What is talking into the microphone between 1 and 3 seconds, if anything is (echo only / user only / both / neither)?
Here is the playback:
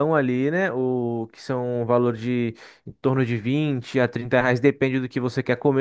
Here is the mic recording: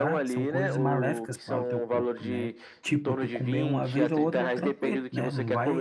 both